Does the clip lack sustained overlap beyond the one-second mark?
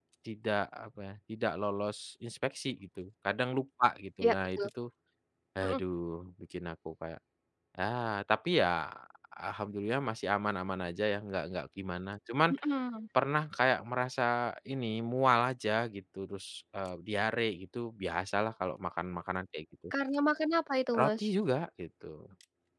Yes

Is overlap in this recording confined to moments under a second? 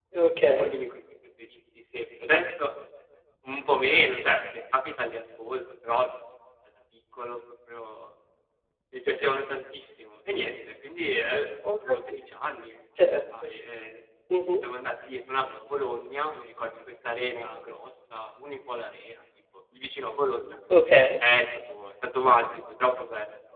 Yes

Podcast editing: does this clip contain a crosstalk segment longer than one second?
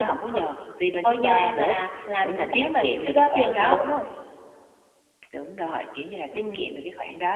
Yes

